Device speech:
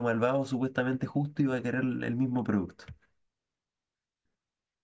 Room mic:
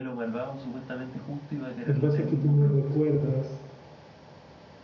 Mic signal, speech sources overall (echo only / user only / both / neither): both